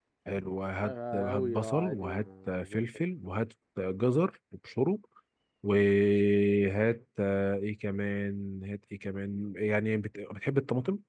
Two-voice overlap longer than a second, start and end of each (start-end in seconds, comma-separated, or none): 0.8-2.8